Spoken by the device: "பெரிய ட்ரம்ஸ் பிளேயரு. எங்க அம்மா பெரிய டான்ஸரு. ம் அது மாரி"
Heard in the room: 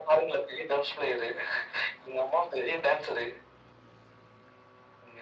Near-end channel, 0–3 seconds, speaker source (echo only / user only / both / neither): echo only